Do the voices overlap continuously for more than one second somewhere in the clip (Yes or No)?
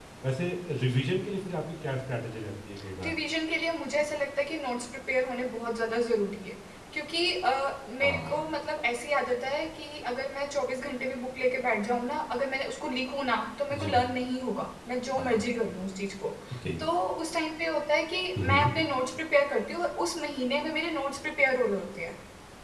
No